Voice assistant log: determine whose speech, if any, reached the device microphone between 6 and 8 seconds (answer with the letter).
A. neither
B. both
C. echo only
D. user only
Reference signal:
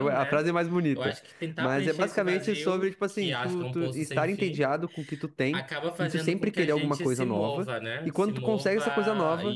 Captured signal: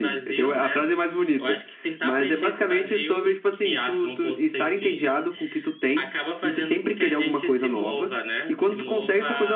C